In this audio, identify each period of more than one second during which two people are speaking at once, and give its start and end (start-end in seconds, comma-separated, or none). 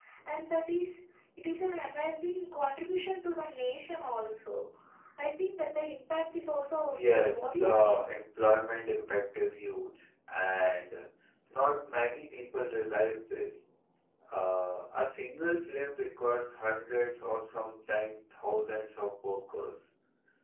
6.9-8.1